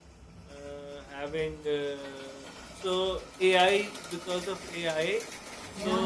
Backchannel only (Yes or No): Yes